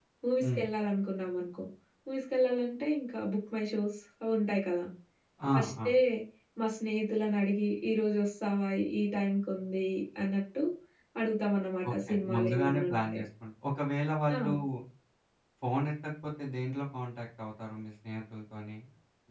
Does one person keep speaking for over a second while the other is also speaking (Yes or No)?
Yes